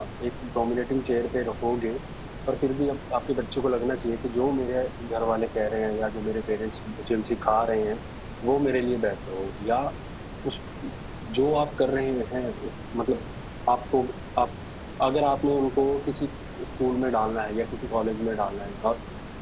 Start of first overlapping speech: none

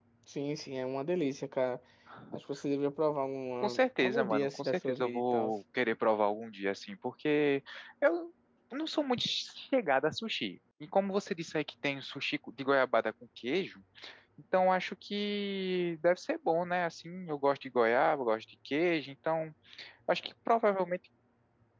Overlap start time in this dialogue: 3.6 s

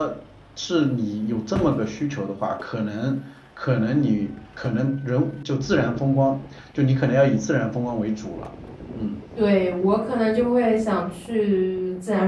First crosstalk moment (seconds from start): none

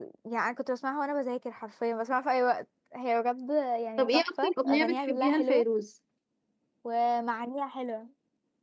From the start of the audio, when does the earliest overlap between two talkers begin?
4.0 s

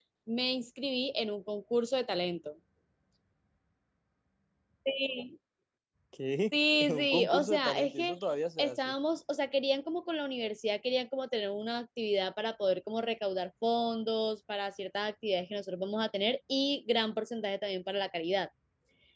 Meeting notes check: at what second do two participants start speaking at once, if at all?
6.7 s

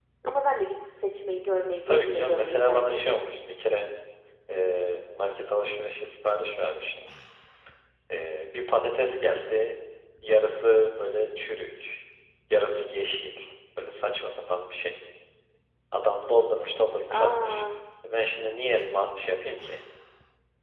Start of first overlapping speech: 1.9 s

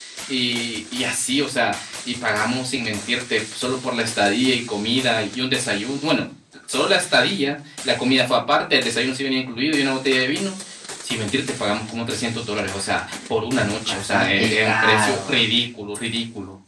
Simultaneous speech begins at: 13.9 s

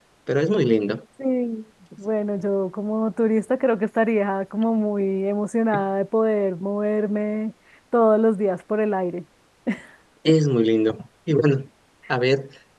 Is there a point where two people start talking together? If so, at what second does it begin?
none

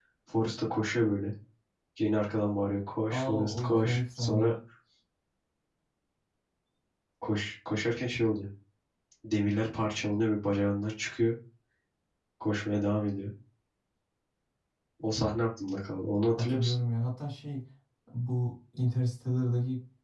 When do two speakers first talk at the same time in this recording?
3.2 s

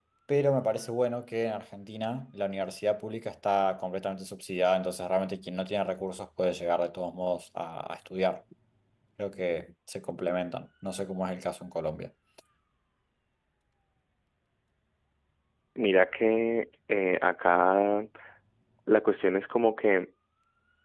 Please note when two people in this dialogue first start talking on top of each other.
none

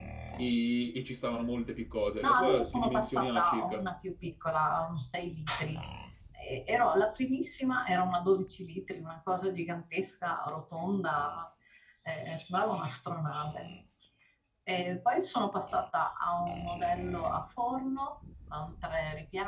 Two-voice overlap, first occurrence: 2.2 s

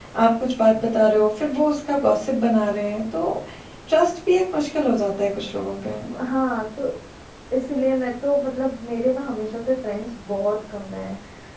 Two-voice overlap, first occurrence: none

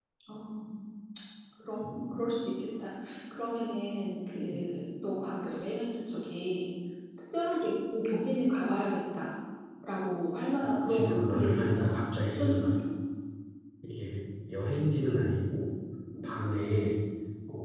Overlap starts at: 10.6 s

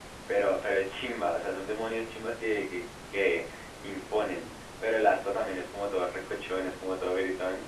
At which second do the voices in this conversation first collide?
none

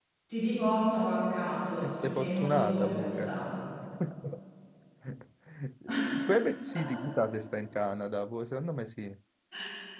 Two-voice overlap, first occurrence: 1.8 s

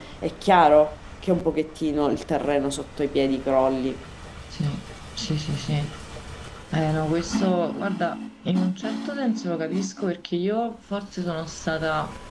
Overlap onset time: none

